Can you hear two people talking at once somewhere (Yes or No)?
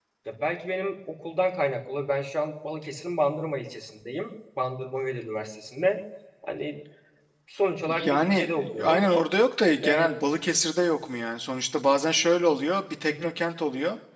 Yes